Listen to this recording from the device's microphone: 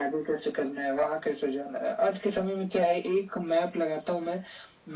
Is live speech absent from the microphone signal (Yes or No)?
Yes